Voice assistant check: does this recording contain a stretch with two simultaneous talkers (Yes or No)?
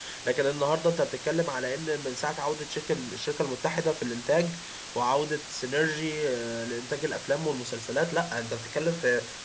No